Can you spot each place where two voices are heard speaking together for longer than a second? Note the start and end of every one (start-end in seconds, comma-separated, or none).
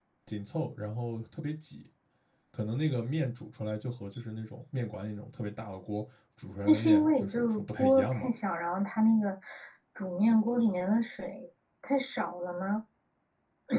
6.6-8.3